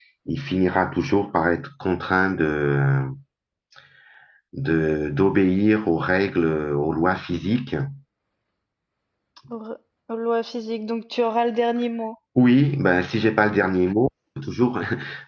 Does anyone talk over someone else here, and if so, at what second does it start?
none

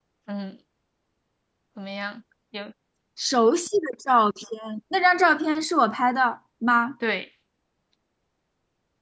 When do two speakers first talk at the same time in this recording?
none

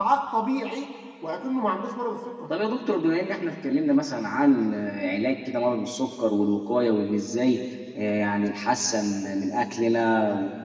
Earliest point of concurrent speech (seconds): none

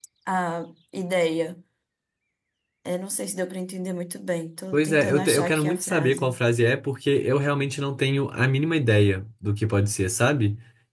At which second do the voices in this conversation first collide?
5 s

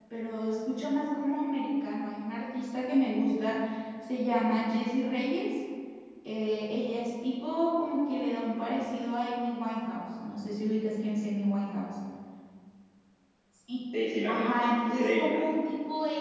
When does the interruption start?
14 s

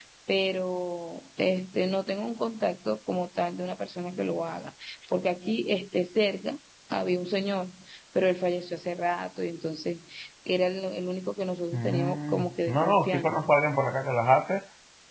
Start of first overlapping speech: 12 s

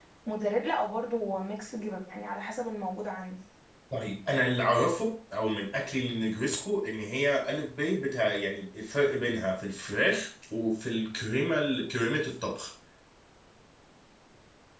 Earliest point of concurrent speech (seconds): none

